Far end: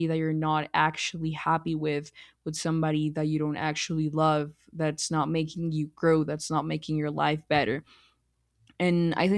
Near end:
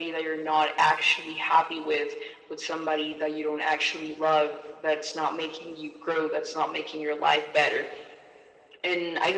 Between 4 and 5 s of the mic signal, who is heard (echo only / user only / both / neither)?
echo only